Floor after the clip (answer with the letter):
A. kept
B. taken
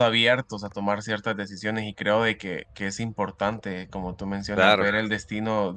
A